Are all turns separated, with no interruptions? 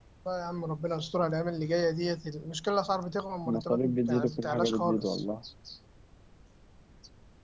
No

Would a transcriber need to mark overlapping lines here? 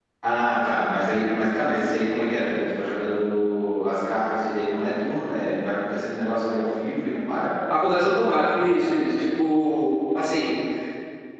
No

